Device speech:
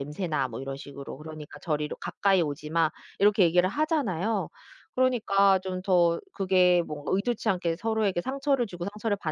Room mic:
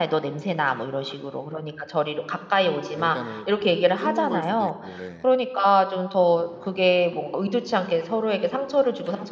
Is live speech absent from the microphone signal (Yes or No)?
No